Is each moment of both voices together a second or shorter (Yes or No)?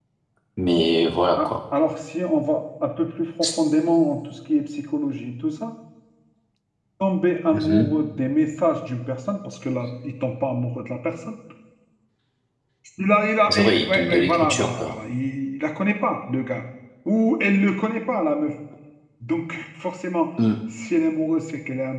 No